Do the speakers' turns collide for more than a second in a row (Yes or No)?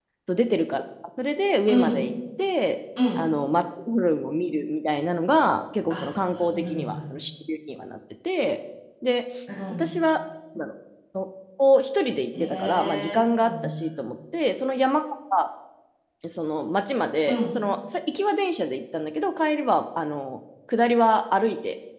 Yes